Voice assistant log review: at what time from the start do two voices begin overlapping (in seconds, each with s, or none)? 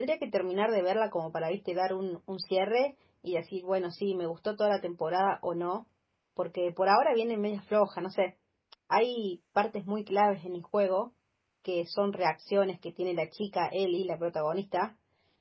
none